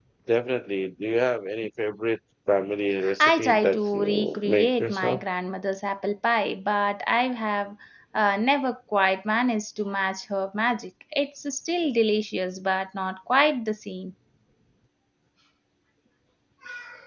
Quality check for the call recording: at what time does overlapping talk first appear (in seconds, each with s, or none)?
3.0 s